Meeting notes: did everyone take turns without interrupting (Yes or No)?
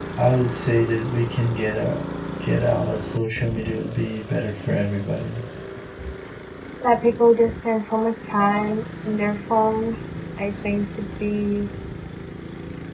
Yes